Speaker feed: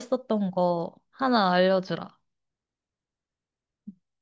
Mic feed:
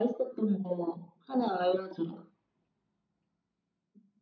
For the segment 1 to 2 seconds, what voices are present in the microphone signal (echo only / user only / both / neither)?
echo only